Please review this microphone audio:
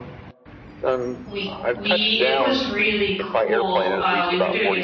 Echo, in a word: present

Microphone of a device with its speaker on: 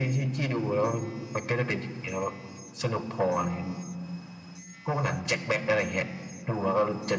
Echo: present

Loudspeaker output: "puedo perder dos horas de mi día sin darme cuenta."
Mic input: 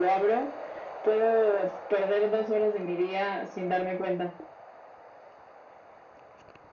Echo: present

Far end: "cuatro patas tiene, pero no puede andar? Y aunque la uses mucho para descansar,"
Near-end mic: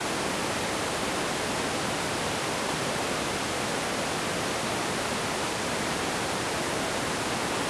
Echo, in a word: none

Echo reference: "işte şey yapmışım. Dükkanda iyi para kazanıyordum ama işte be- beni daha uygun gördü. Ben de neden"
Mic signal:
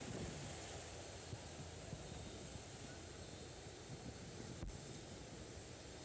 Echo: none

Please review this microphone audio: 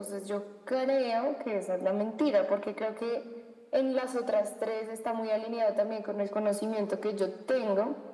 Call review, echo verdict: present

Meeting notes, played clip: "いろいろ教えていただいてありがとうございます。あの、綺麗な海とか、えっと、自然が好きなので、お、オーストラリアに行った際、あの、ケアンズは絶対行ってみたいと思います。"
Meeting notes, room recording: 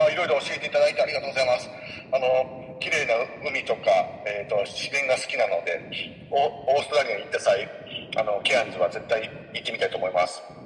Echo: present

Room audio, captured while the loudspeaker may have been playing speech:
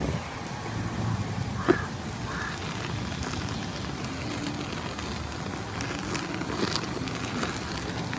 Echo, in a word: none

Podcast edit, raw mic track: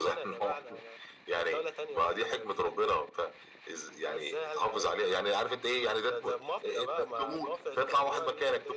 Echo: present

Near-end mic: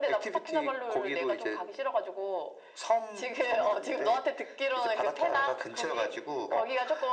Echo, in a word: present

